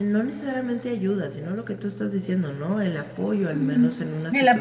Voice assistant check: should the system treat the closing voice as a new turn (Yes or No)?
Yes